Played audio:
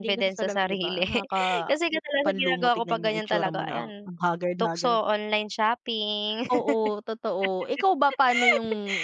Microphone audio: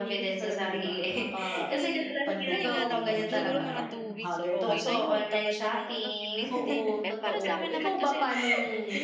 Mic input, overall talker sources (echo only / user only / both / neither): both